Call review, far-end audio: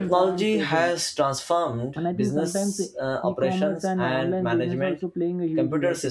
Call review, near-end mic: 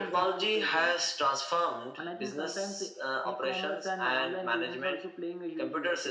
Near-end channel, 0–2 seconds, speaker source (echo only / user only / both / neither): echo only